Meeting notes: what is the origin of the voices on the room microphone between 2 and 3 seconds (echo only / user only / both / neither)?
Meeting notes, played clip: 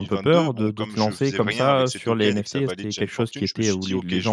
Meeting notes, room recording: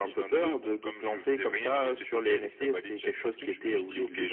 echo only